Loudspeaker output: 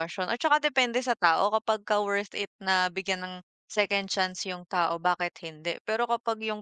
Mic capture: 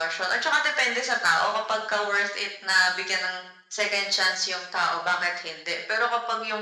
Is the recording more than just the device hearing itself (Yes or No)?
No